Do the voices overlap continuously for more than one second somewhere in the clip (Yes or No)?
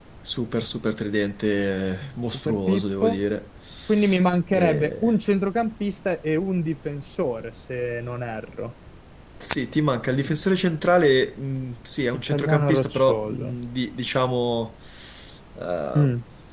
Yes